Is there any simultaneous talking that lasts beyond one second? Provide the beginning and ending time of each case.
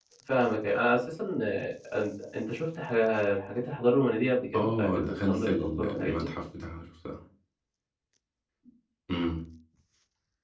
4.5-6.3

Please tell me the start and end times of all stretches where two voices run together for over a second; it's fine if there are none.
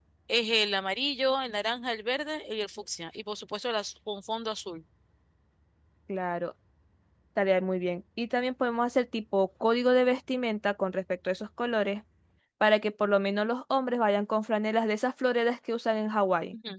none

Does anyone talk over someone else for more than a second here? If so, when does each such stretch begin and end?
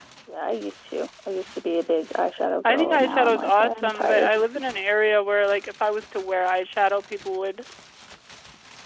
2.6-4.3

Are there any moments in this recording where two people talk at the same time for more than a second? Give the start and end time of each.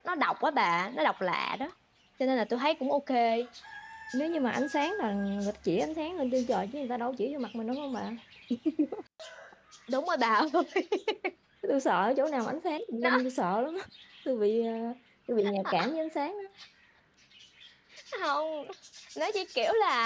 none

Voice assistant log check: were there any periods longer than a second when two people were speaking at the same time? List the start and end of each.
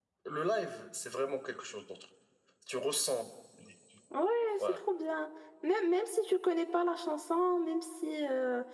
none

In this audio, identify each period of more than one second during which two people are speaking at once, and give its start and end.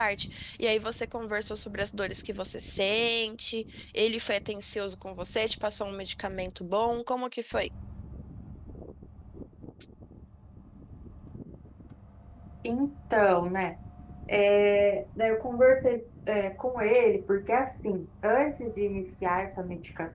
none

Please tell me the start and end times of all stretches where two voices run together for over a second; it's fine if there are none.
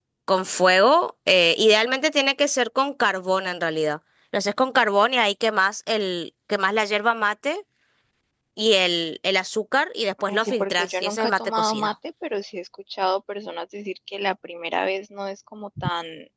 10.3-11.9

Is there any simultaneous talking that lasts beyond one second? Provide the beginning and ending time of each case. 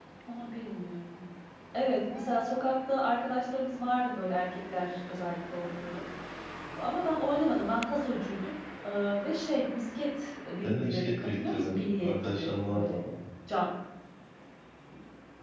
10.6-13.0

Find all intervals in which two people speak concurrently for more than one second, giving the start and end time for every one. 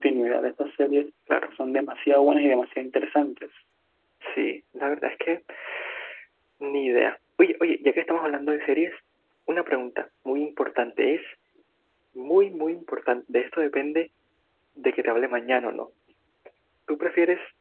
none

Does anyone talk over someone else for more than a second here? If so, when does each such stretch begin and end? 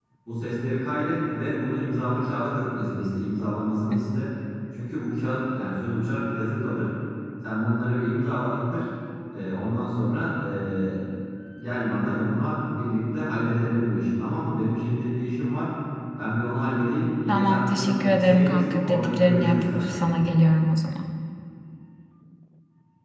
17.3-20.3

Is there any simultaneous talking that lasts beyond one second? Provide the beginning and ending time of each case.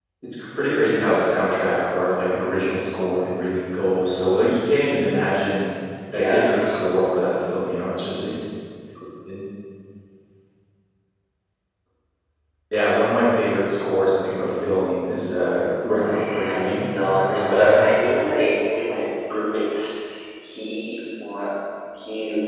15.9-17.9

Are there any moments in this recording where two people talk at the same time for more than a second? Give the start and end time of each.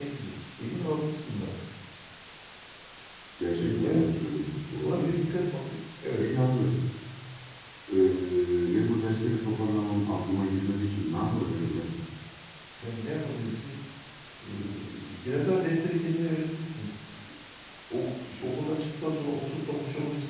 none

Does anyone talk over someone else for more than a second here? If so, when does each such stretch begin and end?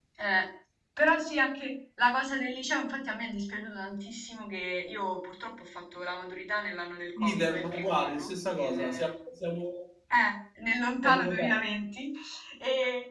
7.2-9.1

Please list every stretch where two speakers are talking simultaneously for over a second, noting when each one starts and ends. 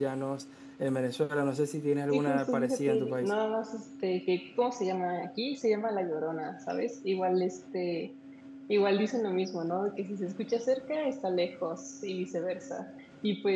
2.1-3.3

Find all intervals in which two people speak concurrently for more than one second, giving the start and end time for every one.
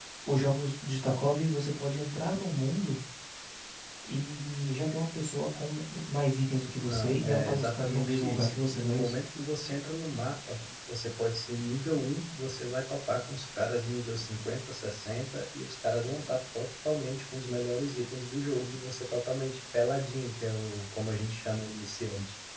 6.8-9.1

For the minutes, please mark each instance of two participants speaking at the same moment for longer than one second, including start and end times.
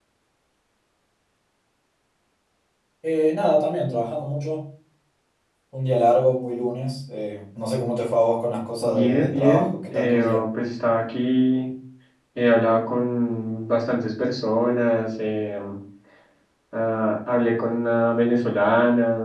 8.8-10.4

